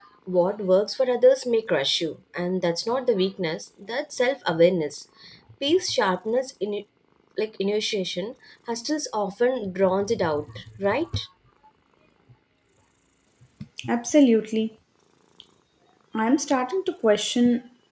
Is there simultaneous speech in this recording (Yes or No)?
No